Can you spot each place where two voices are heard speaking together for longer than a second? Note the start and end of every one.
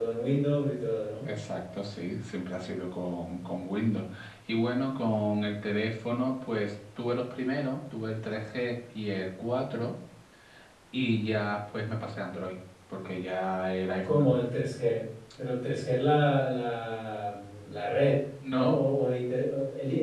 none

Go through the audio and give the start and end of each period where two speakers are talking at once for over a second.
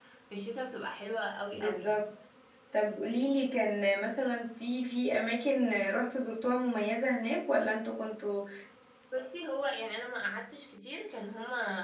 none

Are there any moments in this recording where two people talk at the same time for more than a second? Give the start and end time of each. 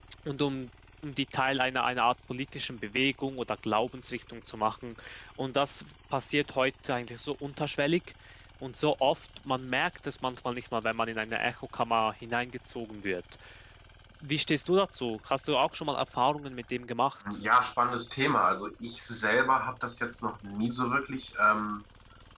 none

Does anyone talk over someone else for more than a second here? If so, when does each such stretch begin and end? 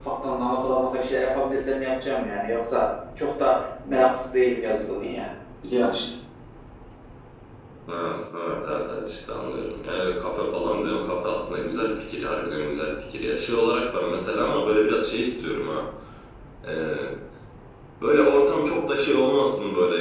none

